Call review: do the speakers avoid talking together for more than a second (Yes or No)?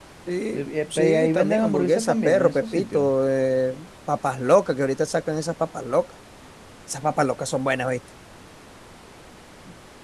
No